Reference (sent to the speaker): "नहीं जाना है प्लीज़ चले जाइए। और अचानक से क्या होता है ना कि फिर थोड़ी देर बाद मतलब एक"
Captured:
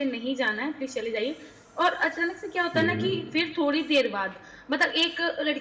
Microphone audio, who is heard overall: both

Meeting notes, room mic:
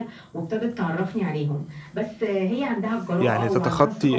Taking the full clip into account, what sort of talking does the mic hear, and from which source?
both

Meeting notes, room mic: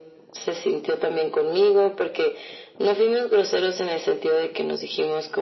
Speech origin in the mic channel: echo only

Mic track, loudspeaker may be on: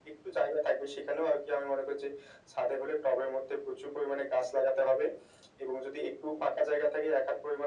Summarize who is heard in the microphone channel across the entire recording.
echo only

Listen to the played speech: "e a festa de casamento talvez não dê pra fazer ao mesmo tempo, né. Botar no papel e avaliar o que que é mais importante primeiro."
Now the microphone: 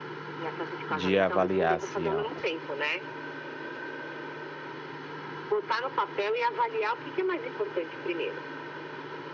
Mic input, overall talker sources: both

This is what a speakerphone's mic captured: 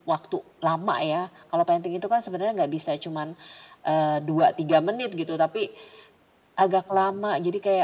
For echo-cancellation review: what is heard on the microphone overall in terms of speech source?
echo only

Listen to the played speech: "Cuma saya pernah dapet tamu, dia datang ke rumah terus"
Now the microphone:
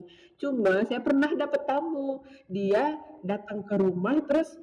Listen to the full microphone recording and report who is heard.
echo only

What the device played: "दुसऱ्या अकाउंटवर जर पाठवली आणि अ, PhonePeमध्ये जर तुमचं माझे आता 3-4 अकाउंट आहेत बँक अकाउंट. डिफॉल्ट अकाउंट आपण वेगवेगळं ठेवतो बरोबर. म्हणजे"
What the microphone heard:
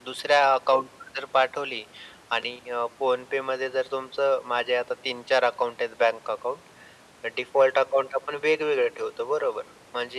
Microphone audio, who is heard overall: echo only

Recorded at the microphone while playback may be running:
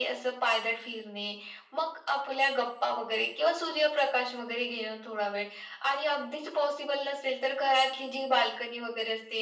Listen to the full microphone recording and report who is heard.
echo only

